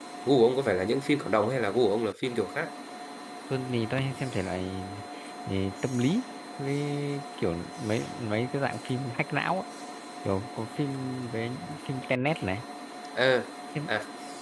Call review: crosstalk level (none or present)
none